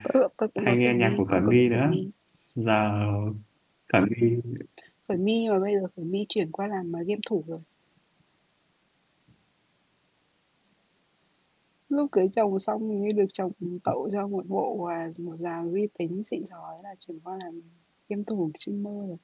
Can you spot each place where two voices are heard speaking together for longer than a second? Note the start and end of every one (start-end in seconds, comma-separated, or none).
0.6-1.9